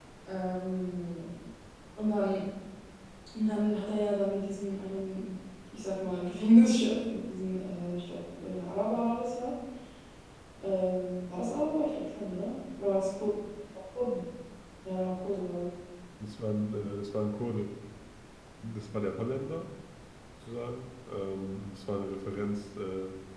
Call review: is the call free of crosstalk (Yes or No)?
Yes